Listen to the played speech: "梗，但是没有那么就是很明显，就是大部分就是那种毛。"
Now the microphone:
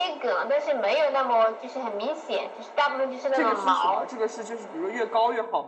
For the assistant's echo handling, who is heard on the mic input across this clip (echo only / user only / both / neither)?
both